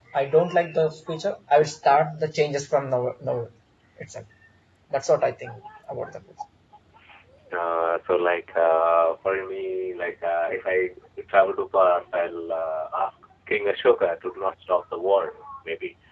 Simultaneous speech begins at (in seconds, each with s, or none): none